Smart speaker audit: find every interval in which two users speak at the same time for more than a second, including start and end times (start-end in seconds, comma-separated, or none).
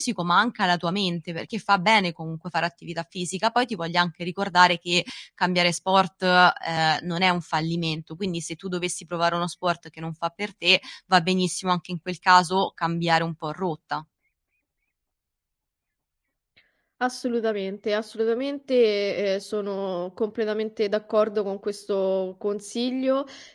none